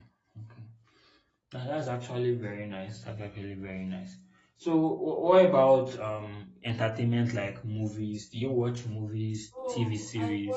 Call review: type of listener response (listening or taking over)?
taking over